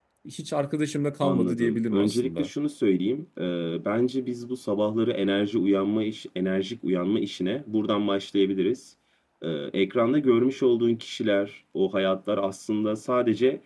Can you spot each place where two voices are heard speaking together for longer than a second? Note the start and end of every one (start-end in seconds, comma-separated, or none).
1.2-2.5